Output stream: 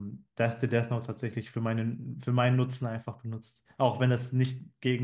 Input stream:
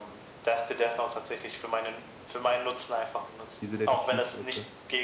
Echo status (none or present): present